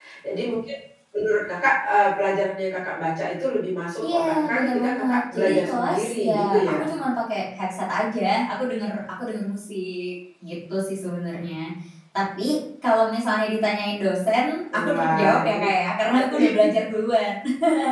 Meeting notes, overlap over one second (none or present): present